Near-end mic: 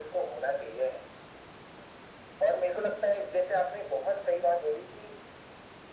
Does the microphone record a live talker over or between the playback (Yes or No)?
No